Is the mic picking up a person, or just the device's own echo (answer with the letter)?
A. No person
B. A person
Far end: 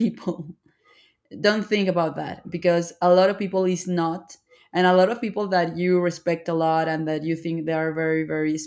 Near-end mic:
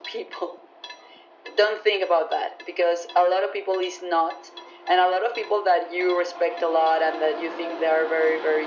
A